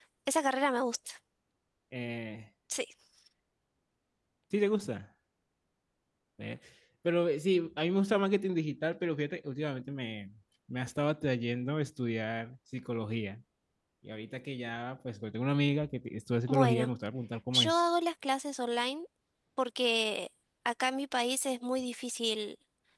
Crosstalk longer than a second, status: none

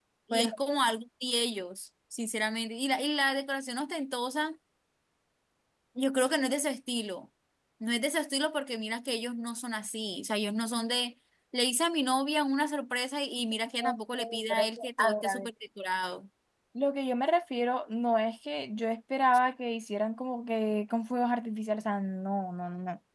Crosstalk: present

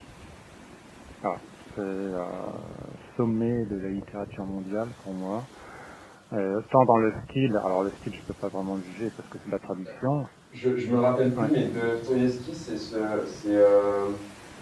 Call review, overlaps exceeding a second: none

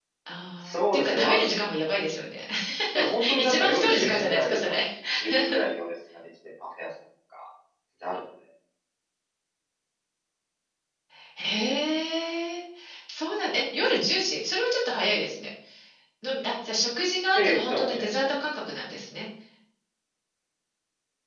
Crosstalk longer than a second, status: present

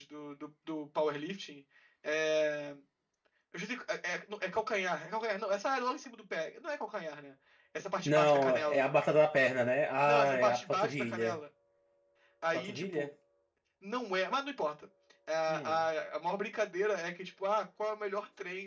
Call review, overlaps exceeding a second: present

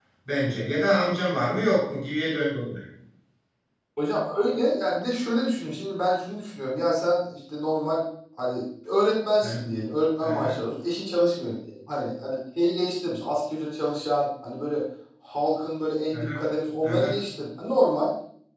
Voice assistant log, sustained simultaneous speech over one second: none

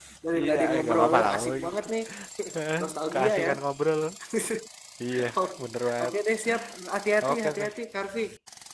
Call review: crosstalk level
present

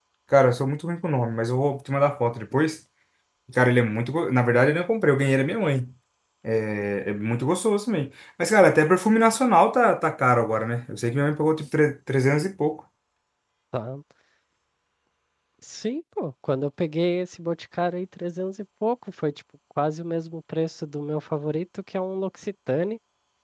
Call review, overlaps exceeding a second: none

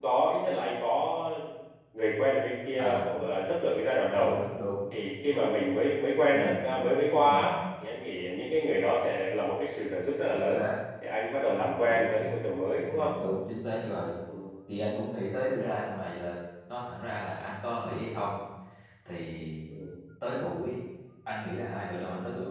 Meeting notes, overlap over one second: none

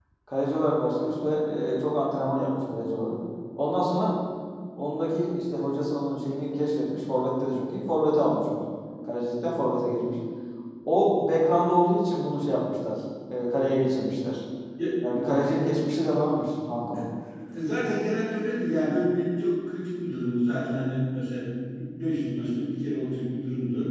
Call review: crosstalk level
none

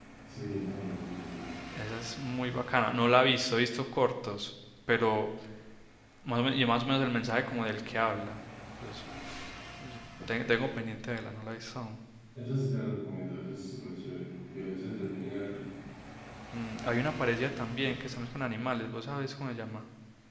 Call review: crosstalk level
none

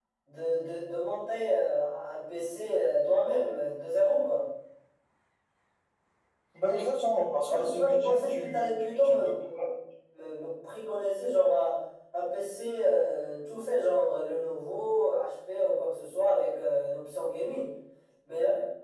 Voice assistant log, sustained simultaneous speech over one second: present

